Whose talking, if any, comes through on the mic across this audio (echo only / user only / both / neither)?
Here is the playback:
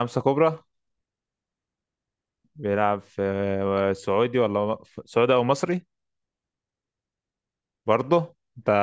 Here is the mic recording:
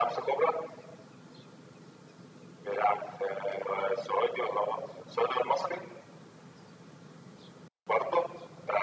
echo only